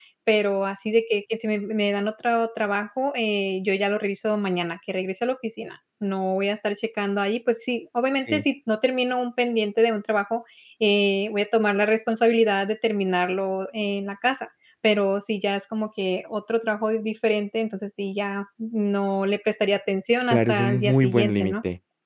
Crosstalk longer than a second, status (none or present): present